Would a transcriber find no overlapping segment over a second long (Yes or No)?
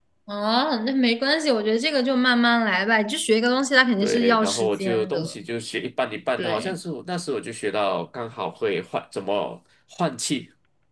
No